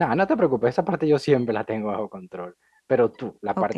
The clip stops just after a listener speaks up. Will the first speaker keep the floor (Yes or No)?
Yes